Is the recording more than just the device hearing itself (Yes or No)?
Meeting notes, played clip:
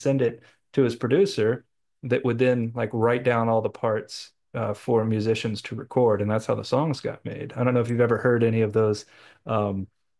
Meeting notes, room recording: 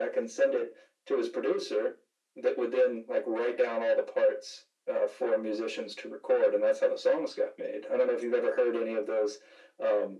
No